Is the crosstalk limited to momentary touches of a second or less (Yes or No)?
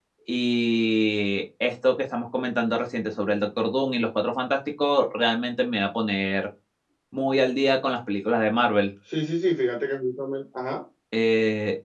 Yes